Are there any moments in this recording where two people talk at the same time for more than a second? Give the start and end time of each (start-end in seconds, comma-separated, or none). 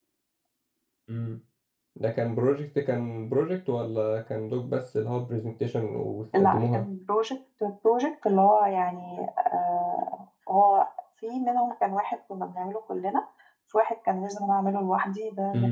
none